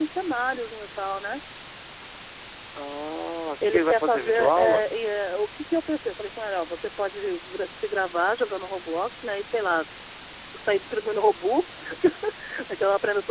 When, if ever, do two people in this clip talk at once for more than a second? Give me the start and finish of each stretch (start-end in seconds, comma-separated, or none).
3.6-4.8